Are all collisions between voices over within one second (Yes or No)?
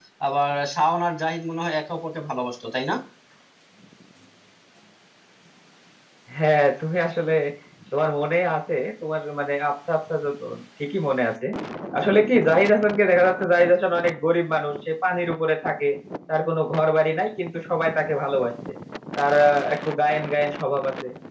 Yes